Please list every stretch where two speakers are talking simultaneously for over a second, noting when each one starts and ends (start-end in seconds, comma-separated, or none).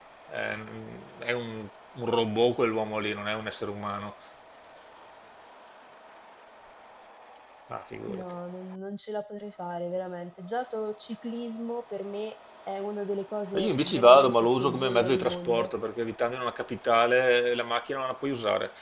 13.6-15.8